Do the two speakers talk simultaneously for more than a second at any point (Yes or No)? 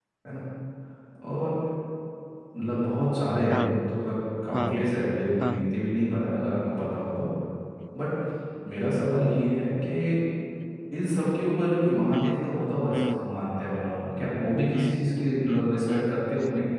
Yes